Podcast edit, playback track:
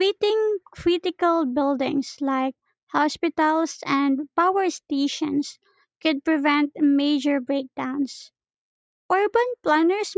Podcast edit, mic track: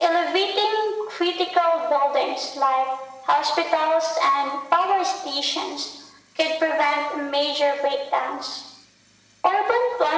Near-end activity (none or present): none